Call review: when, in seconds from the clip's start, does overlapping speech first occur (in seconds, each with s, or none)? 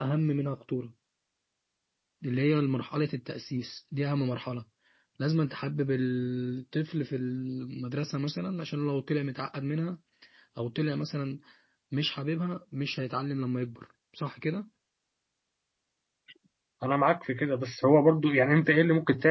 none